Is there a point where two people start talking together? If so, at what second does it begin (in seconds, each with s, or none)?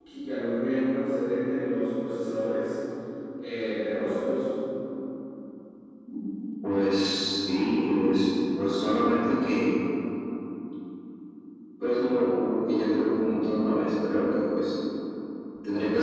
none